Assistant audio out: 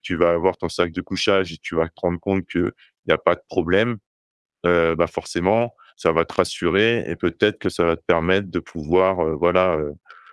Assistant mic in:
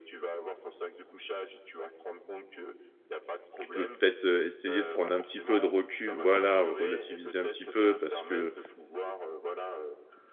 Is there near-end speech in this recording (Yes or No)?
Yes